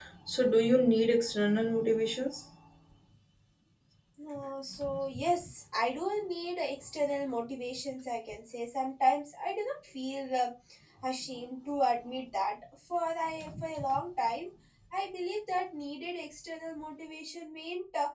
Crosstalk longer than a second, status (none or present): none